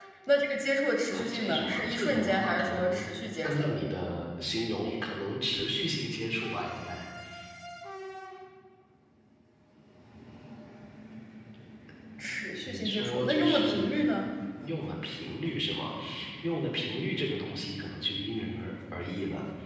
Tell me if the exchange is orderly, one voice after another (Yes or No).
No